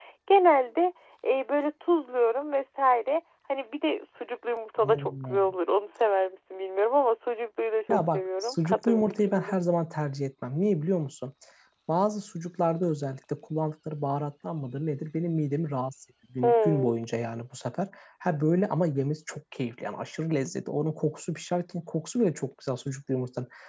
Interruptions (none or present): present